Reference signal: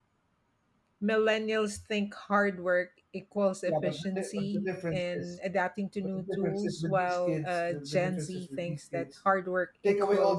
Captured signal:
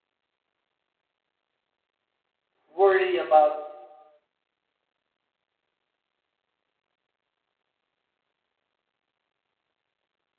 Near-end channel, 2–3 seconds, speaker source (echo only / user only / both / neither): user only